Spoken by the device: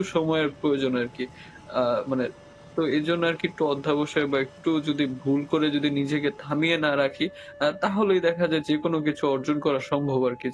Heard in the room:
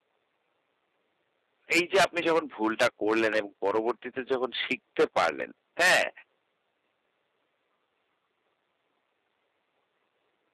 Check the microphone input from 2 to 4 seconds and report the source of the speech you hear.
user only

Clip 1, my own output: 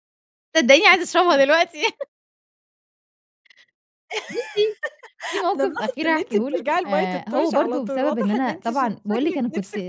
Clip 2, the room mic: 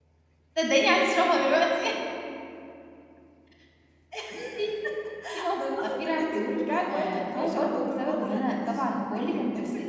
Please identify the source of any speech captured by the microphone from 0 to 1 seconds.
echo only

